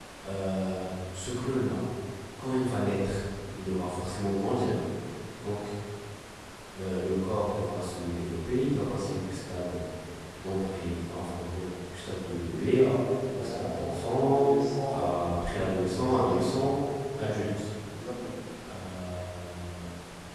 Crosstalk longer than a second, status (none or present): present